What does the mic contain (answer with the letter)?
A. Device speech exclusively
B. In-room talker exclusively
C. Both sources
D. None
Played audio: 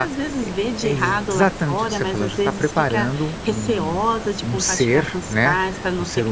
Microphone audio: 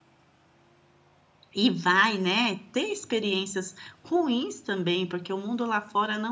B